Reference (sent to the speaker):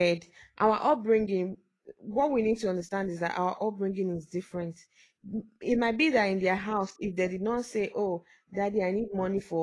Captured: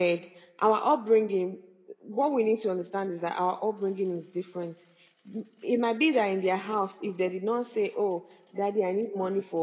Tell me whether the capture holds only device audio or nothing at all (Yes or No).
Yes